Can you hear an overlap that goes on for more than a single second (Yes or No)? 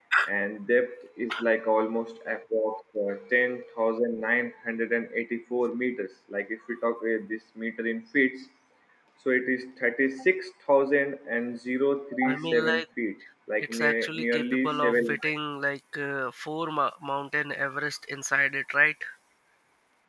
Yes